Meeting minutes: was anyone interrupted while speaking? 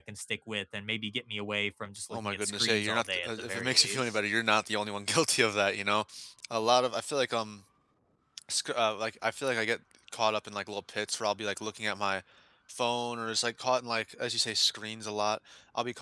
Yes, from 2.1 s

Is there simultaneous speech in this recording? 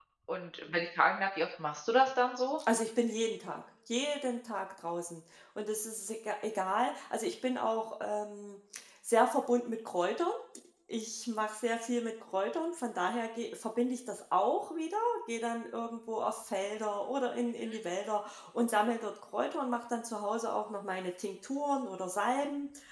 No

